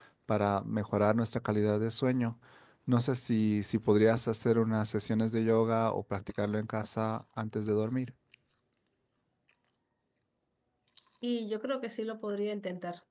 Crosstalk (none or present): none